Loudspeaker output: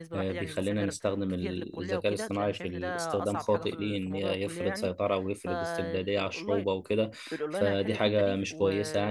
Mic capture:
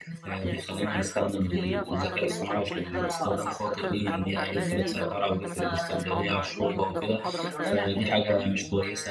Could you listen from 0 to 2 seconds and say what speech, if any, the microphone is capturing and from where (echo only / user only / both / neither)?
both